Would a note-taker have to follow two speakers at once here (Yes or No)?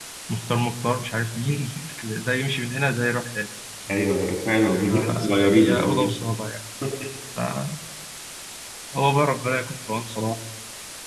Yes